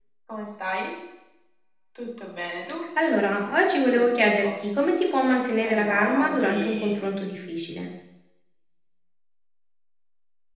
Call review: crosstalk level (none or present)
present